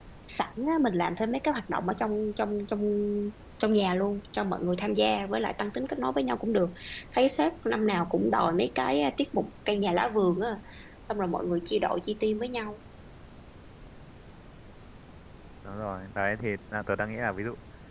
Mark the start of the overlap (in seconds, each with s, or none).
none